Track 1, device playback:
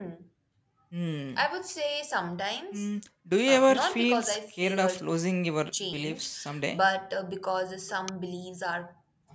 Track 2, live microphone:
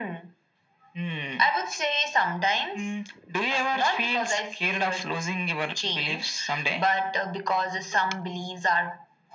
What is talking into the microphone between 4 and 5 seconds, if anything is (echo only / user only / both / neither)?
echo only